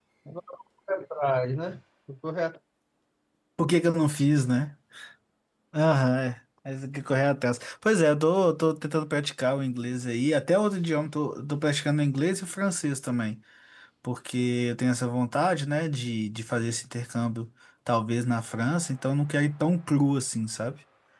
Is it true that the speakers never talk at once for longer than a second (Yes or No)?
Yes